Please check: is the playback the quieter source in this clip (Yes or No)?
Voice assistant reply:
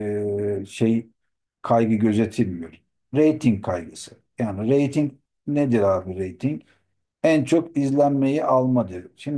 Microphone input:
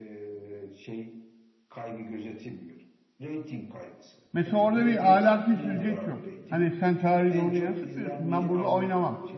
Yes